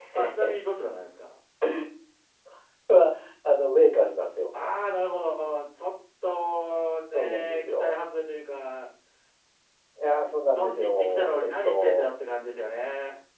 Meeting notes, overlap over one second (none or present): present